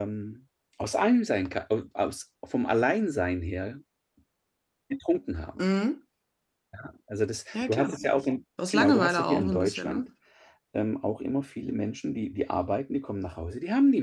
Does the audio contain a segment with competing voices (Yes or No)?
Yes